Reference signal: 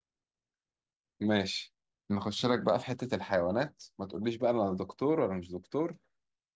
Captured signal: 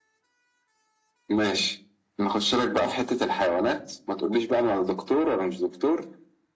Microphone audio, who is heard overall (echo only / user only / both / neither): echo only